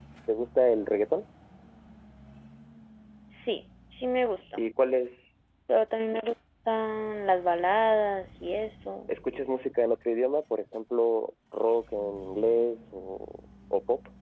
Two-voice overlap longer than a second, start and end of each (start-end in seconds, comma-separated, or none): none